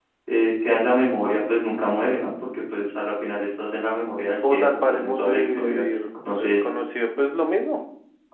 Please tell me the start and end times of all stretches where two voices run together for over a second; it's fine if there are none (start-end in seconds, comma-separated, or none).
4.5-5.8